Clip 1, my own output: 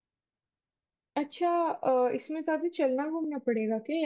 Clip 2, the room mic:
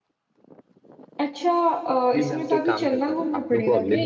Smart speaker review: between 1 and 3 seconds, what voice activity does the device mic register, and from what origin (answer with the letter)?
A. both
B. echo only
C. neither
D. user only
A